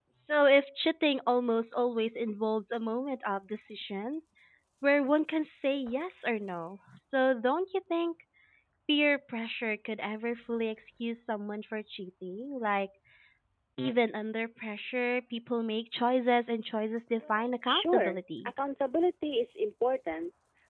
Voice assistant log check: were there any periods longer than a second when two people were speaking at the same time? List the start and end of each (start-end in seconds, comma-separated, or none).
17.3-18.5